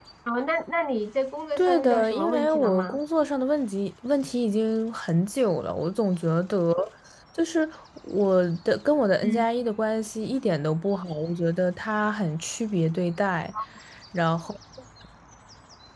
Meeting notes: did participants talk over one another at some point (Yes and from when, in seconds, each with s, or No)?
Yes, from 1.6 s